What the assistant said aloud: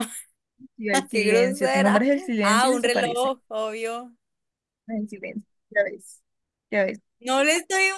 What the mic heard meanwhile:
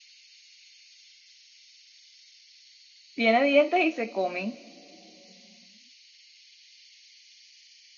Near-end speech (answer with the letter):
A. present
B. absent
A